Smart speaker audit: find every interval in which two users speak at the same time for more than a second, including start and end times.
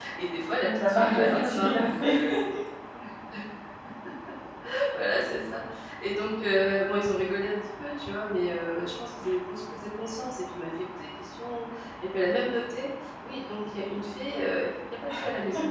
0.6-2.1

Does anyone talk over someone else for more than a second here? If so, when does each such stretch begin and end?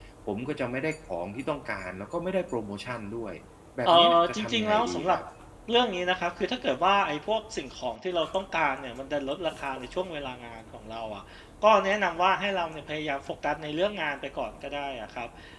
3.9-5.2

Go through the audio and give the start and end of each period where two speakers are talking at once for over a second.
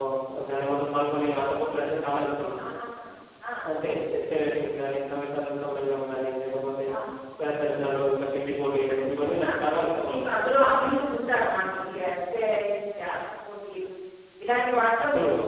none

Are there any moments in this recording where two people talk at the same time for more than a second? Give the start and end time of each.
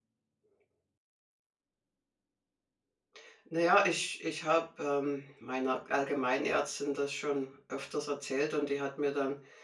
none

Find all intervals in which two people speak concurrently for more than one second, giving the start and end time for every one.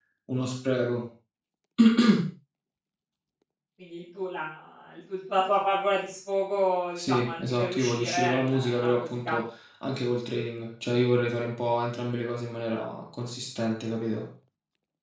7.0-9.4

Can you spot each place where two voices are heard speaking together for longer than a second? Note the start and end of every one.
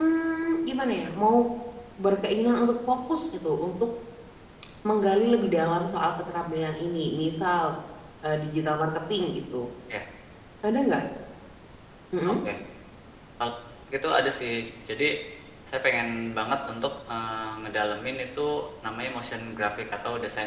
none

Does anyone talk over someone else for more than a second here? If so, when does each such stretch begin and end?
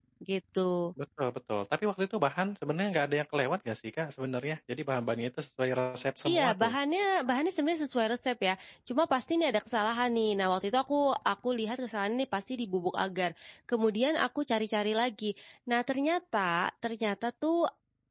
none

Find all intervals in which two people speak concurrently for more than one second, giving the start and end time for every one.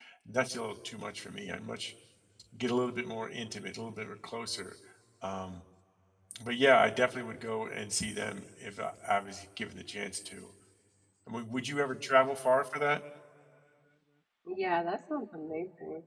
none

